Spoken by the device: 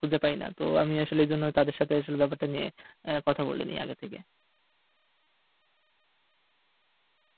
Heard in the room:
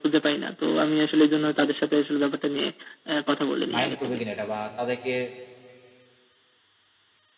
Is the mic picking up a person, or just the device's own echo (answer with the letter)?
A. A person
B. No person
A